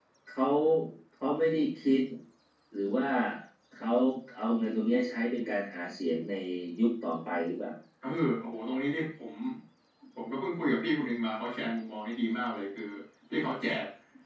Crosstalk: none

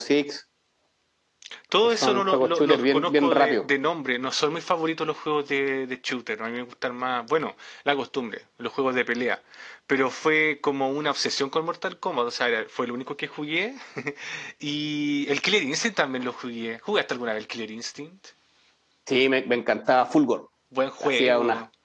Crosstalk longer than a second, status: present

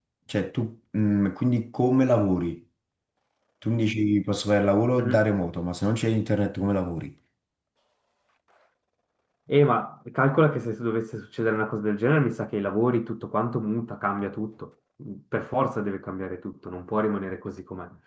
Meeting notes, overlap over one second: none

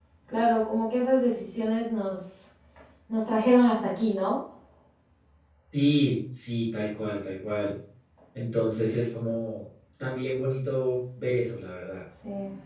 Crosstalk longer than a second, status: none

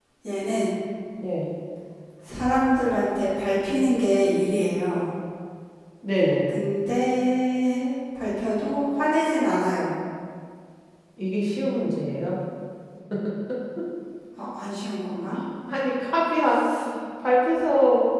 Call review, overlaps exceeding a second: none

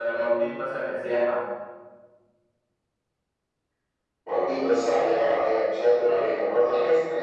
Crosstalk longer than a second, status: none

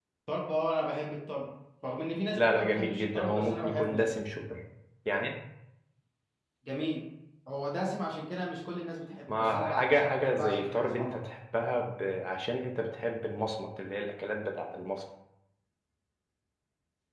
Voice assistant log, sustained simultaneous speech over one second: present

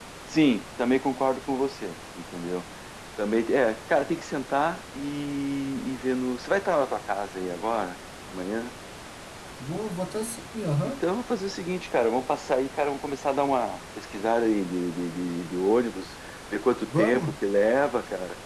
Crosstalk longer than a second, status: none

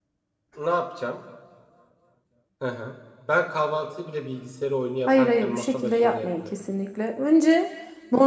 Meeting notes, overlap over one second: present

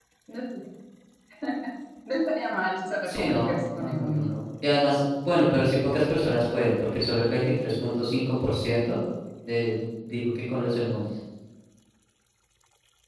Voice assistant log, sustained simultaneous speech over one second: present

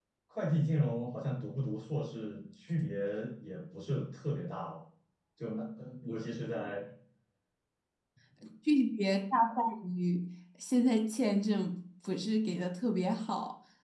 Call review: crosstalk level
none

